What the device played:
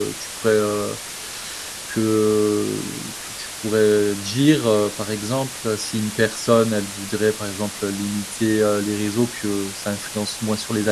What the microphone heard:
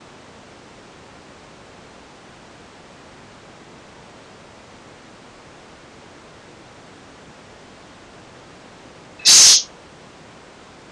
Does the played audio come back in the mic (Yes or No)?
No